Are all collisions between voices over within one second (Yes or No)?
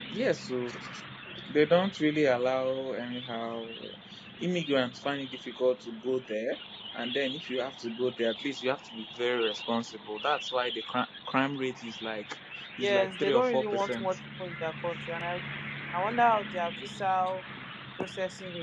No